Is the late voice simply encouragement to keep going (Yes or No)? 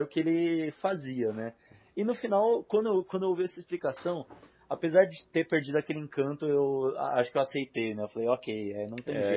No